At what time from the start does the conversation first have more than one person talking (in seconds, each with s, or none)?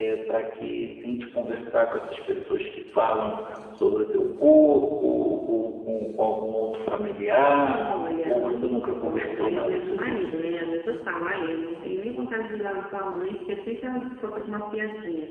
8.3 s